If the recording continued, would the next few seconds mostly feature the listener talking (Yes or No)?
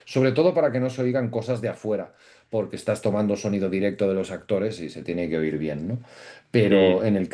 No